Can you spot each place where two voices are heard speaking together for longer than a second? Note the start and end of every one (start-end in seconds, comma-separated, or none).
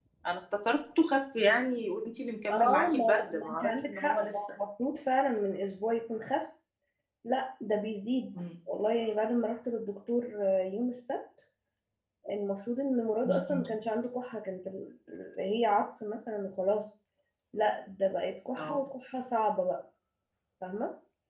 2.5-4.5